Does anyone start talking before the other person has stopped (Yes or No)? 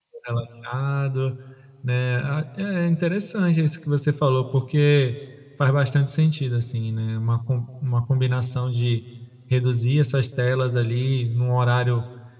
No